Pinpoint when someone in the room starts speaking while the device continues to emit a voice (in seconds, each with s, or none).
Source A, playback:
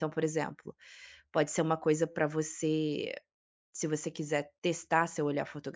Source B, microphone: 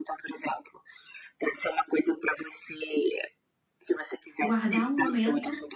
4.4 s